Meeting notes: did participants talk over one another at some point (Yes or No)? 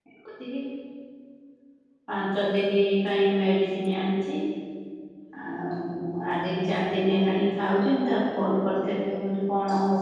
No